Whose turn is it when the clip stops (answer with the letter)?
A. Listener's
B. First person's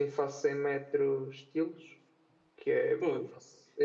B